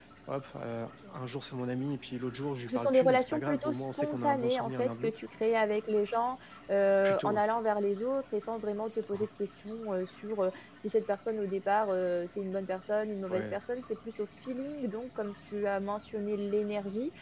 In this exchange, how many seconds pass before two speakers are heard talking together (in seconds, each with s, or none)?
2.7 s